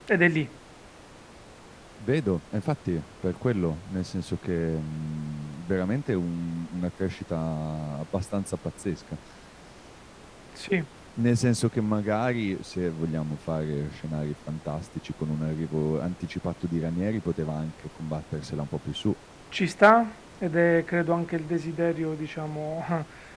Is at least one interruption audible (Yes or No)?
No